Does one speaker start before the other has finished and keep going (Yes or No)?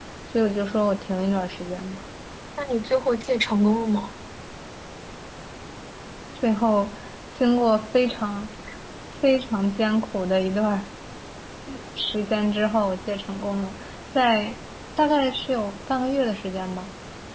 No